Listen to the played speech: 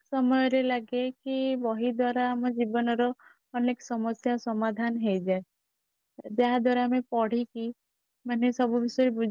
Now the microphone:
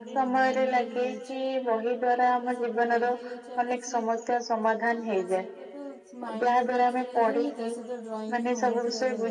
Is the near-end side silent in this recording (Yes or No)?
No